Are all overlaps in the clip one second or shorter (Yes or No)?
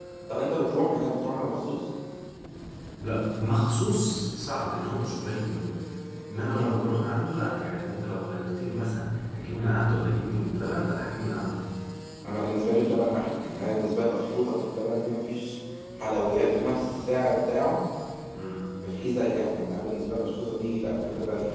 Yes